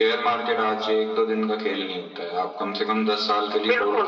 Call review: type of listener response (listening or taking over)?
taking over